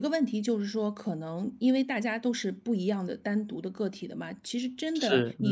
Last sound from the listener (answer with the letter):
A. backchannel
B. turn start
A